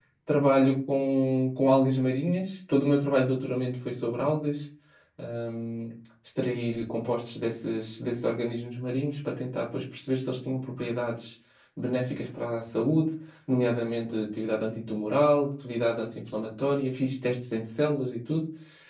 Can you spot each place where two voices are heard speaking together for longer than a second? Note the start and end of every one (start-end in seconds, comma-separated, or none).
none